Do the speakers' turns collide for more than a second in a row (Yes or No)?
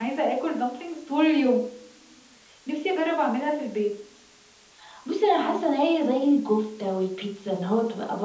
No